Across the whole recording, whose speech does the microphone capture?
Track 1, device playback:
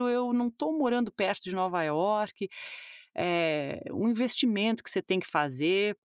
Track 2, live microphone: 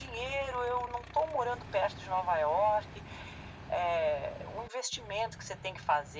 echo only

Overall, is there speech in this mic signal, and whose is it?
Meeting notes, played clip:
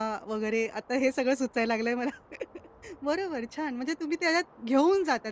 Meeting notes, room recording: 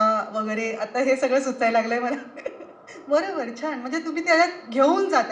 echo only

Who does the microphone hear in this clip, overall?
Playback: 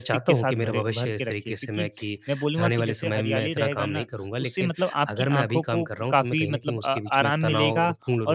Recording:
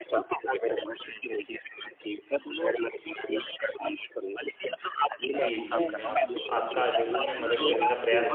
both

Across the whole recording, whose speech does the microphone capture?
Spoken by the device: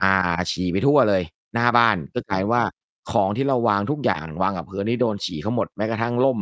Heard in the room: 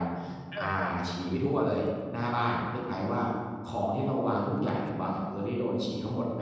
both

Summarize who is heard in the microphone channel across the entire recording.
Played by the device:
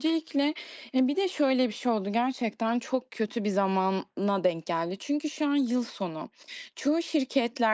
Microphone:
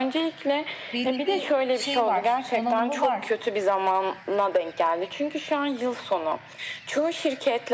both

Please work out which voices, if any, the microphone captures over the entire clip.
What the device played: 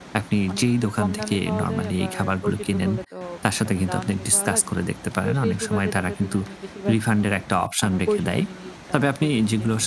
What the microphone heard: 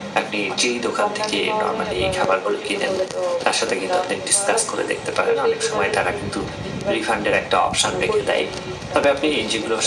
echo only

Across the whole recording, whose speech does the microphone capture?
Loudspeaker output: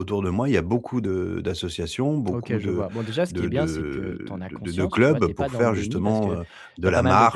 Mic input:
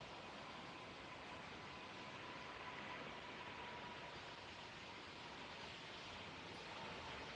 neither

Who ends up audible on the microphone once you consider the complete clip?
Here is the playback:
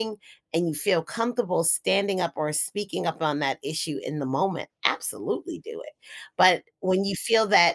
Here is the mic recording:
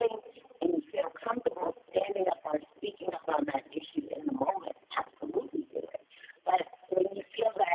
echo only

